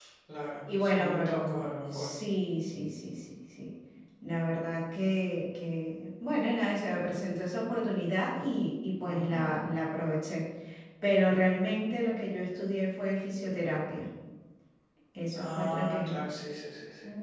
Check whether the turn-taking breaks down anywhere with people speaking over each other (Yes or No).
Yes